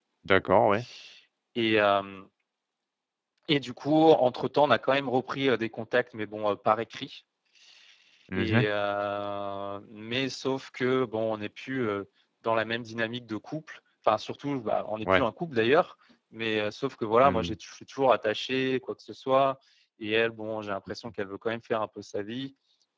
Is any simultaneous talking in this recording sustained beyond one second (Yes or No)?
No